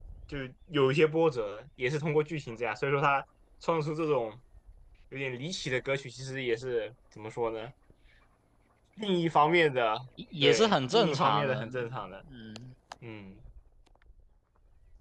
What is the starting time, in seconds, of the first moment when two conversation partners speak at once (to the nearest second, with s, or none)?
10 s